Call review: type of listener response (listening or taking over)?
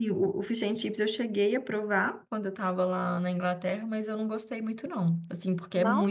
listening